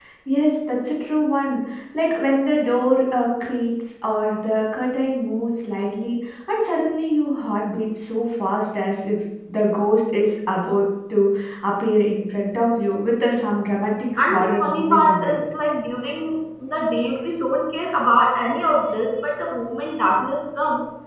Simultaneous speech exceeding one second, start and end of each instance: 14.2-15.4

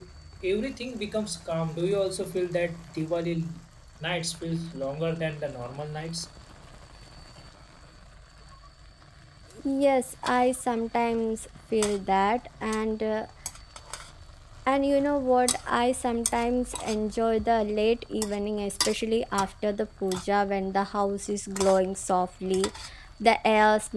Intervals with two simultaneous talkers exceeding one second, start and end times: none

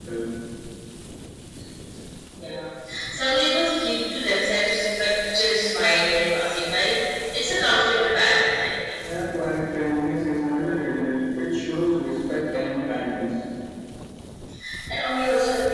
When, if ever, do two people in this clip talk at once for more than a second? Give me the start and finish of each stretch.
none

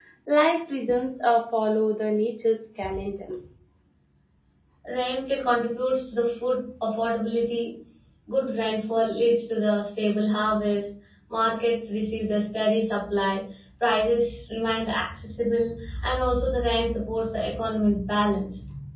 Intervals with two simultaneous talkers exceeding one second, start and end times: none

